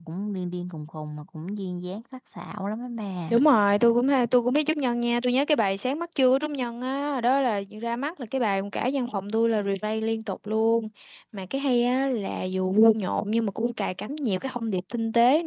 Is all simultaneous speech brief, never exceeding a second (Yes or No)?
Yes